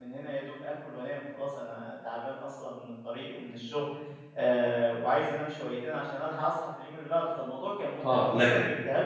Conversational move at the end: taking over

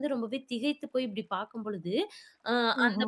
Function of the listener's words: listening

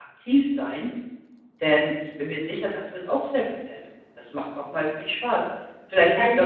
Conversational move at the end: taking over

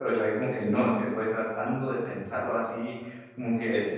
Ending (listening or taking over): listening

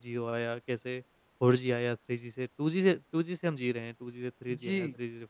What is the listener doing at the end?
listening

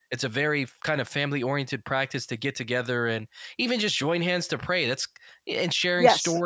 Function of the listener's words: listening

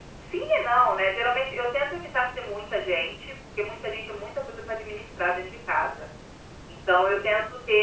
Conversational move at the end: listening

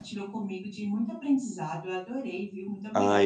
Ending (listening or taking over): taking over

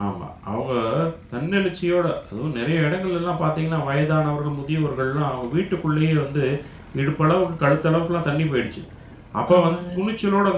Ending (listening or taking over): listening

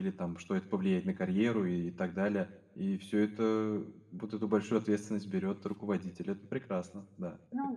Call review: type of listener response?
taking over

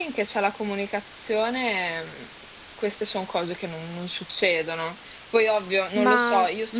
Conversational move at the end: listening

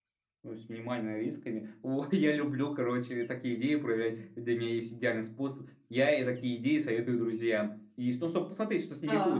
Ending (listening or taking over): listening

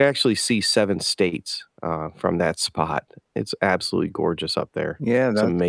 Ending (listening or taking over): taking over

